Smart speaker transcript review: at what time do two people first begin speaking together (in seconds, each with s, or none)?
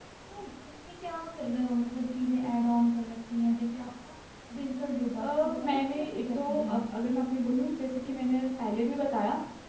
5.2 s